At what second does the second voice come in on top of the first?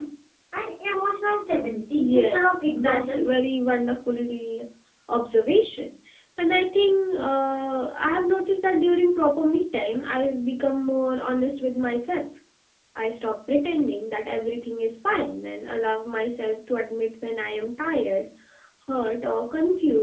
2 s

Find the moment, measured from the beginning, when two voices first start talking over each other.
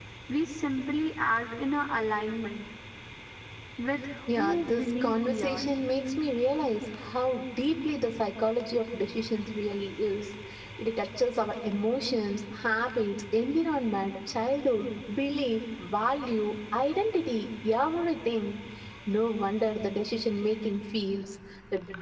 4 s

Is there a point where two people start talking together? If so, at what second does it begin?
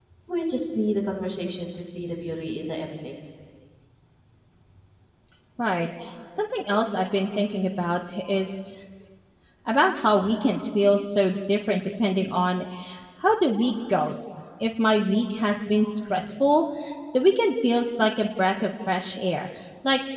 none

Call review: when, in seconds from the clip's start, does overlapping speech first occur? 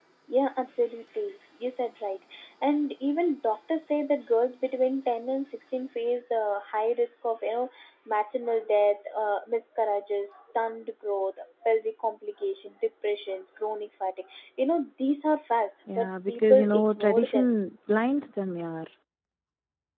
16 s

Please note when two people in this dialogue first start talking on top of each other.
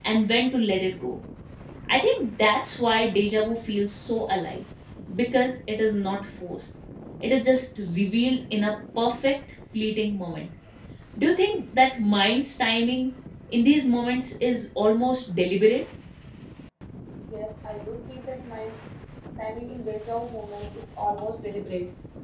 none

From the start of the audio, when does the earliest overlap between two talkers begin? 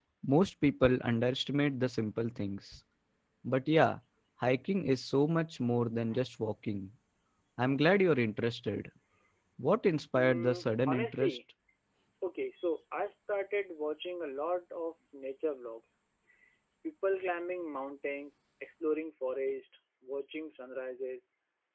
10 s

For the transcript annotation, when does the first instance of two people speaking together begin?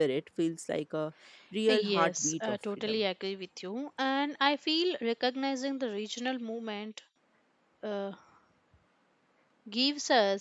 2 s

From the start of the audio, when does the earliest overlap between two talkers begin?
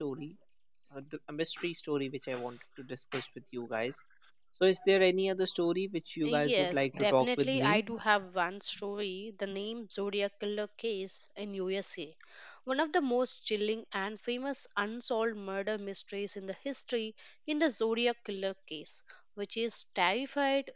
6 s

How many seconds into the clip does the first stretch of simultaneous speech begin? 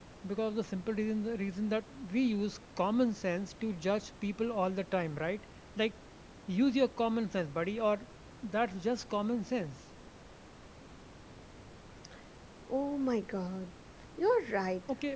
none

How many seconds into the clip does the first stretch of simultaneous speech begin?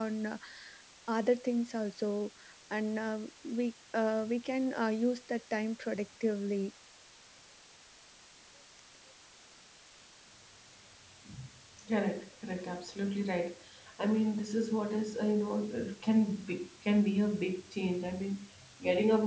none

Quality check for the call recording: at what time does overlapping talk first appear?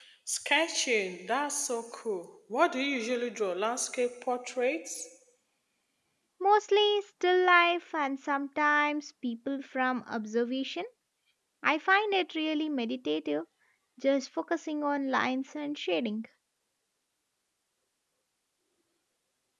none

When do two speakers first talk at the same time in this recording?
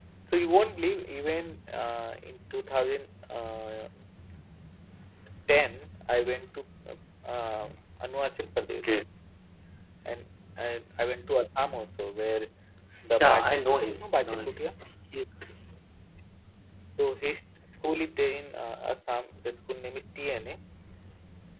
13 s

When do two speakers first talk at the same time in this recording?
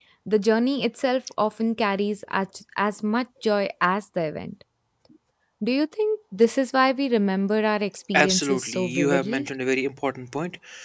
8 s

